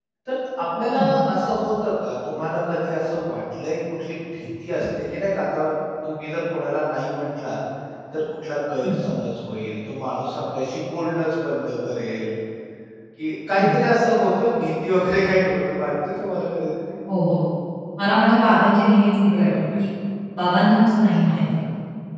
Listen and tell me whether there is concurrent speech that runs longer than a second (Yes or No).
No